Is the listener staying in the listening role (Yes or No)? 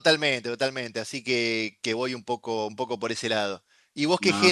Yes